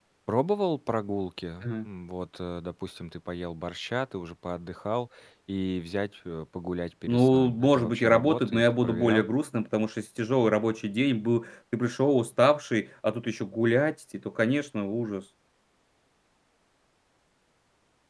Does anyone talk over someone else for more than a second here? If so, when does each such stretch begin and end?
7.1-9.3

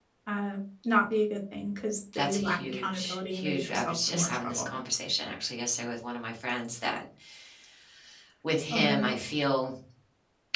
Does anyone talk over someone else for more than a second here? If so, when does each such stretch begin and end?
2.1-4.8

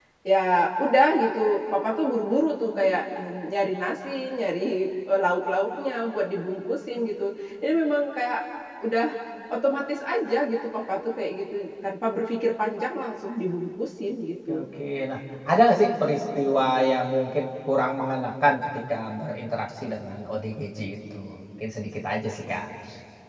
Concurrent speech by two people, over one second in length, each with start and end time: none

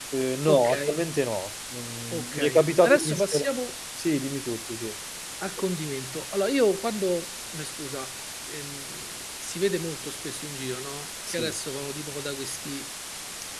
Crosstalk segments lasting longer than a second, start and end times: 2.1-3.5

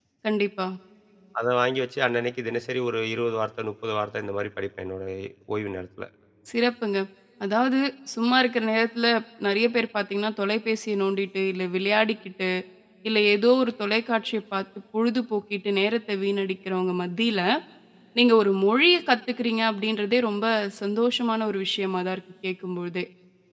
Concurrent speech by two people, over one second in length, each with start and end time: none

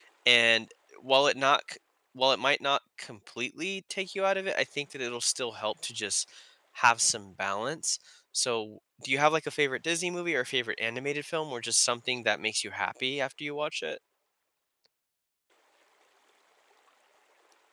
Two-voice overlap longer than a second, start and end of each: none

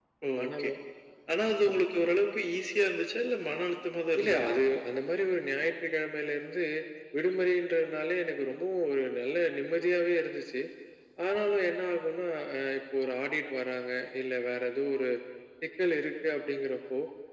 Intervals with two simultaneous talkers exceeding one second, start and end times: none

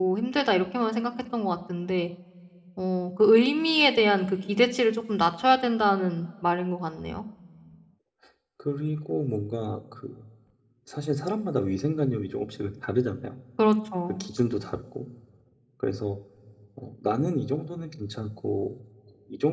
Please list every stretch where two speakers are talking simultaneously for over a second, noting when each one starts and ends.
none

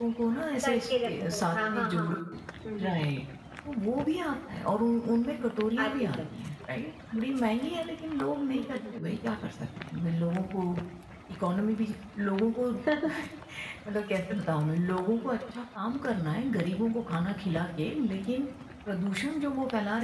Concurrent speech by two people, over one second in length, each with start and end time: 0.7-2.2

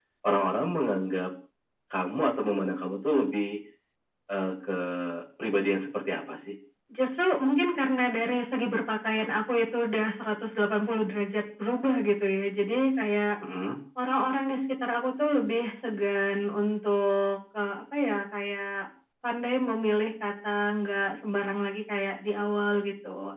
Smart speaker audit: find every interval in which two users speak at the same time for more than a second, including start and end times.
none

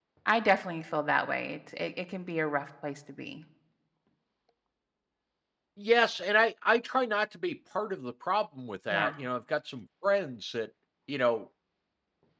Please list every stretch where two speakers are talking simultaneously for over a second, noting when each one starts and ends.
none

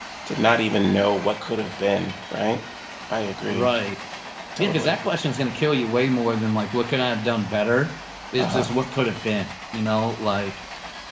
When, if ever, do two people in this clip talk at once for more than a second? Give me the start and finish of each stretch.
none

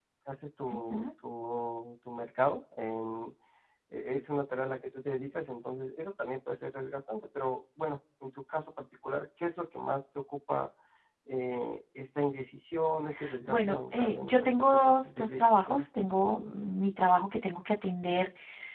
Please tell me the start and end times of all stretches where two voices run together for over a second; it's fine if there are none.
13.5-15.8

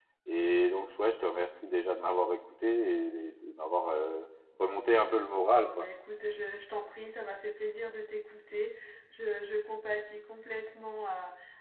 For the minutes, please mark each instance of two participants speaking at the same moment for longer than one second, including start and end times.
none

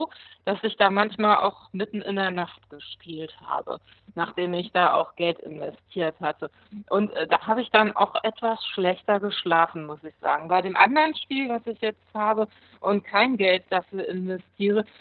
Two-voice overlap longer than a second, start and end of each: none

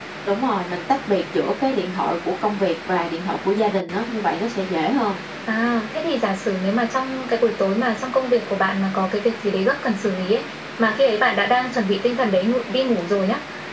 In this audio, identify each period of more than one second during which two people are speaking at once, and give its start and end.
none

